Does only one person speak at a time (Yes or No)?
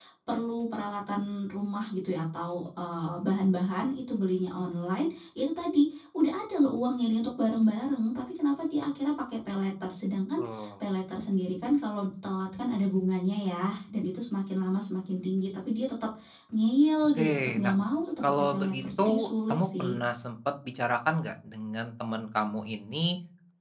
No